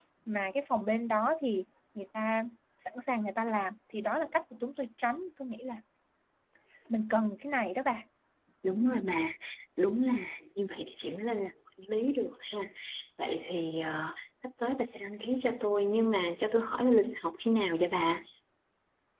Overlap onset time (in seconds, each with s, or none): none